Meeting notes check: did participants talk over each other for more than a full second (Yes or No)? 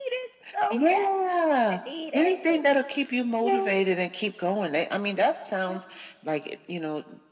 No